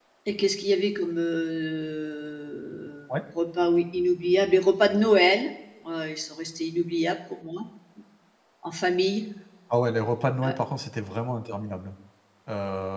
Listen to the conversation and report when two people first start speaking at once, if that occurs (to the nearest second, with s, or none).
none